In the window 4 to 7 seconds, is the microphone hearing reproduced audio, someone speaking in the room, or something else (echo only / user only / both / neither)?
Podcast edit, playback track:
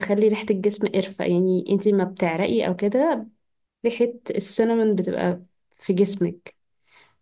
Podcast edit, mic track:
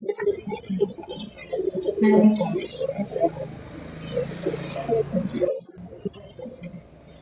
echo only